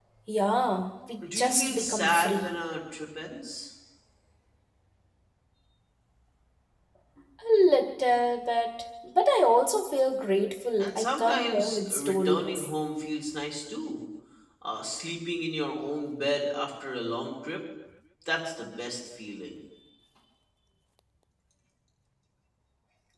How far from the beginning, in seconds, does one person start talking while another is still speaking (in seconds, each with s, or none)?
1.3 s